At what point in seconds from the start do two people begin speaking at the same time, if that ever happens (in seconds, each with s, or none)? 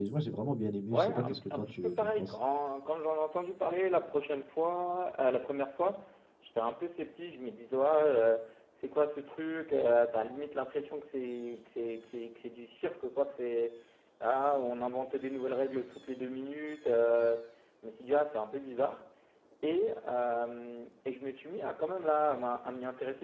0.9 s